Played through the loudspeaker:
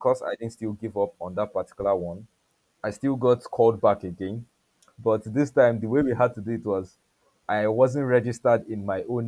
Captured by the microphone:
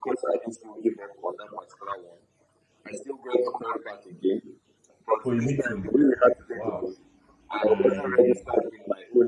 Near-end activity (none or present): present